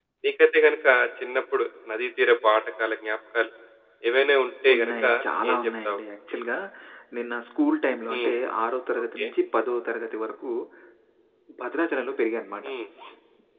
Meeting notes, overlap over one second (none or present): none